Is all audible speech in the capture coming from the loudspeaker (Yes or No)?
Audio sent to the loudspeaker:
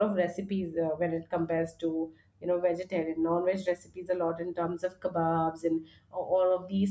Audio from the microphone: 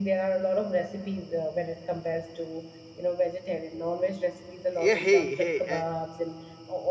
No